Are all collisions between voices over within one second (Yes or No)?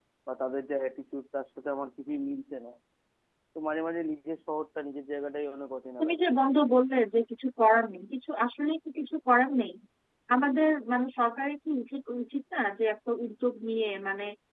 Yes